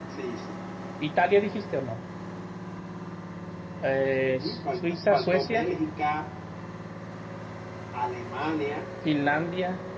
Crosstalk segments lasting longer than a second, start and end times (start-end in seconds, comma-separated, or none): 4.2-5.7